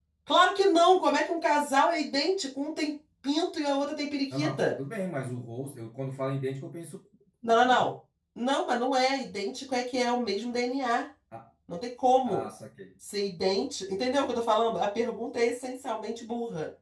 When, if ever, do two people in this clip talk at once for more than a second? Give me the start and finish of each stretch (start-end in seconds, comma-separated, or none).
none